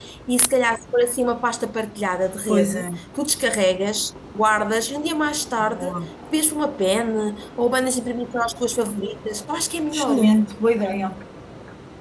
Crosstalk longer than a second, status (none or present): none